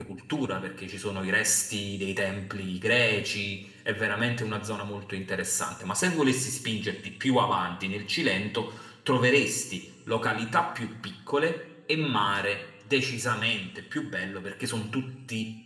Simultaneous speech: No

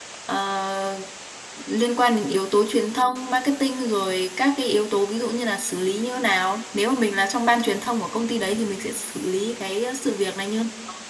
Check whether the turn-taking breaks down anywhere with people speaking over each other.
No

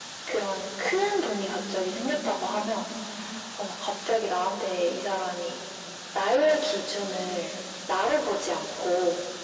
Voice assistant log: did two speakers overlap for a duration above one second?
No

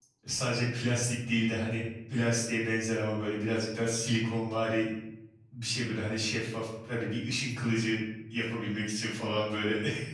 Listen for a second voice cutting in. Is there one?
No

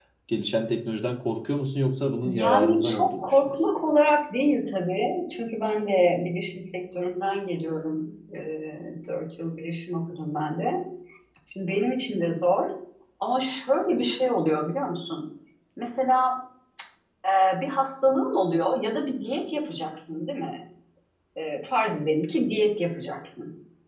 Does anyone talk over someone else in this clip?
Yes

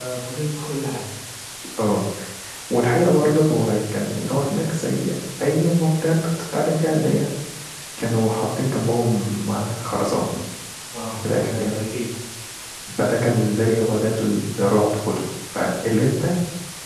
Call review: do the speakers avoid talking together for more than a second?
Yes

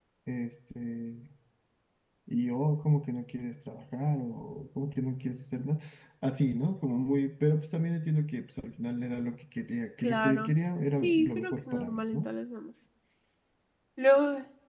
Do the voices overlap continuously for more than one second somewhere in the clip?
Yes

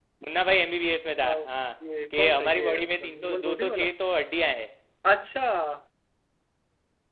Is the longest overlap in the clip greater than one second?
Yes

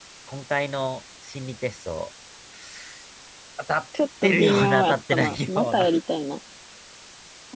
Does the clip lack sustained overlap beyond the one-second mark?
No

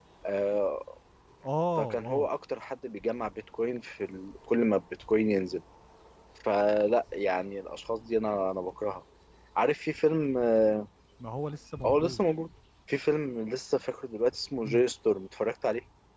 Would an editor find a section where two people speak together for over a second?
No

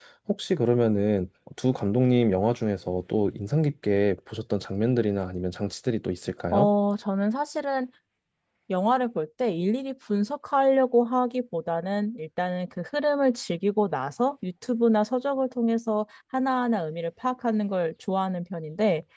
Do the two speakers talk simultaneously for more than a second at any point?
No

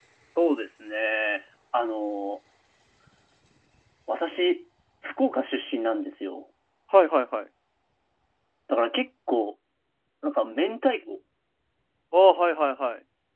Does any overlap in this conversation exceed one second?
No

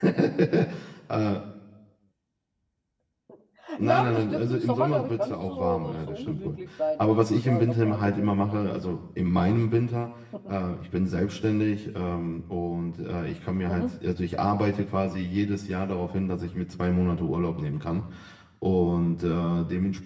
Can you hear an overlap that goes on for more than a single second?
Yes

